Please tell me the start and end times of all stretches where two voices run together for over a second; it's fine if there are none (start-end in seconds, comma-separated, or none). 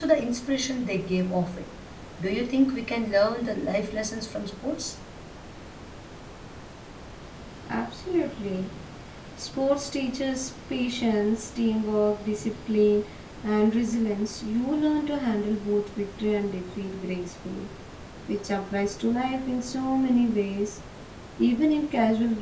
none